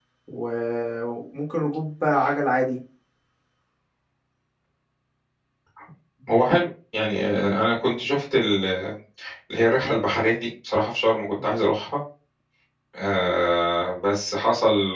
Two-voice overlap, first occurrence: none

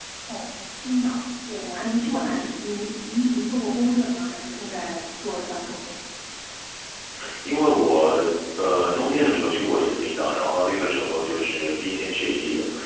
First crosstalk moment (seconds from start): none

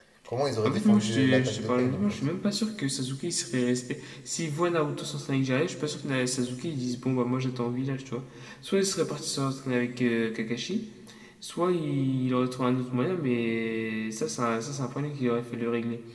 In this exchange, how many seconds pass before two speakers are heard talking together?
1 s

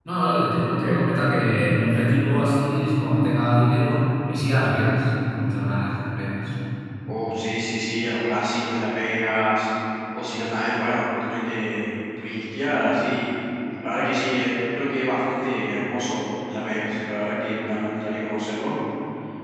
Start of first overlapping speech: none

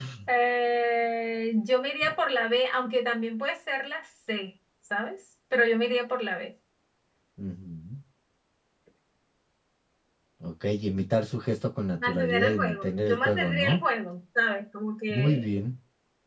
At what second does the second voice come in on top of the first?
12 s

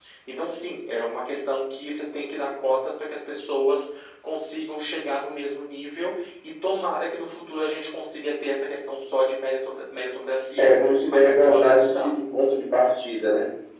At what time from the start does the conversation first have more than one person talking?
11 s

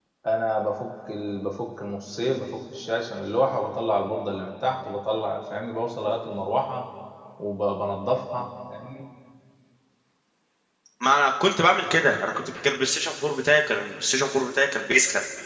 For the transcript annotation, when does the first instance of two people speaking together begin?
none

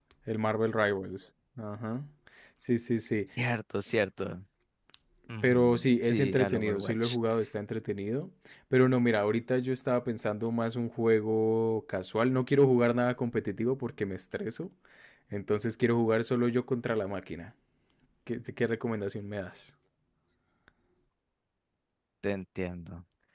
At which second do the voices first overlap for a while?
5 s

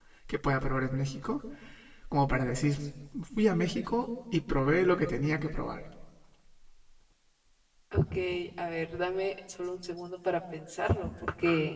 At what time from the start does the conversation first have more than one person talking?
none

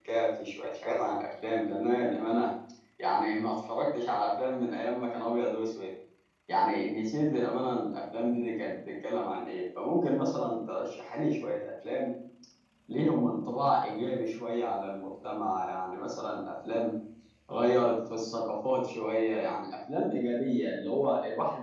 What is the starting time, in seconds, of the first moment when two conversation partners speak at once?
none

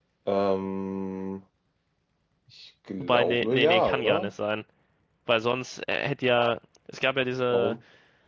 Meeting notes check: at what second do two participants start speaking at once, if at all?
3 s

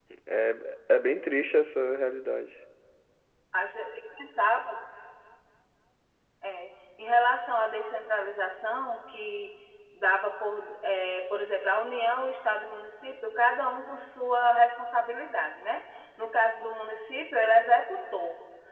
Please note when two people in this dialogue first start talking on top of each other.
none

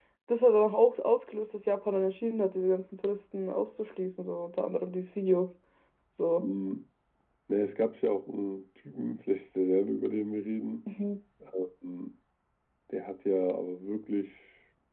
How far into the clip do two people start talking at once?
none

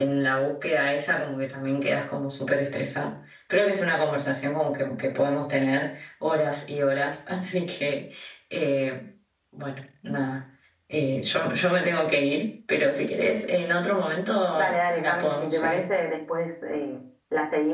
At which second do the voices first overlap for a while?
15 s

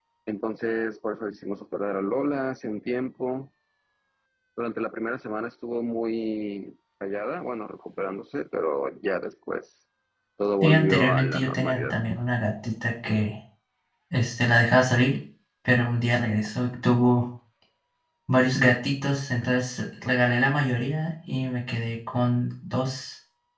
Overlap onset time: 11 s

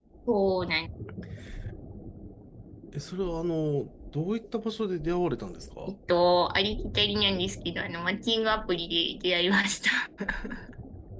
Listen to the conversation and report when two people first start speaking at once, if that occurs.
none

